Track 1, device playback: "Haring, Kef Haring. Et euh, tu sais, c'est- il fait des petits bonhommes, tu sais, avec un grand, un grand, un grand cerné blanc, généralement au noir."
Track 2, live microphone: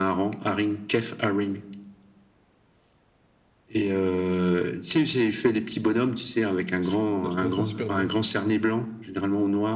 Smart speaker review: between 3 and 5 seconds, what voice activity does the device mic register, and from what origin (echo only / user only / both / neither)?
echo only